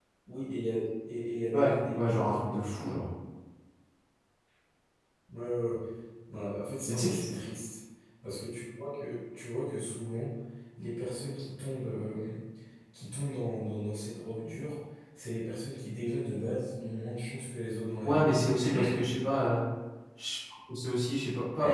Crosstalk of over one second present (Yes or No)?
Yes